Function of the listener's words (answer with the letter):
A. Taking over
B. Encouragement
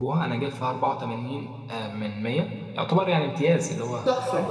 B